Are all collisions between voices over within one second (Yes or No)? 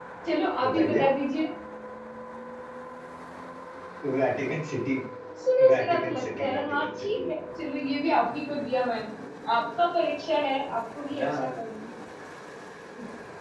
No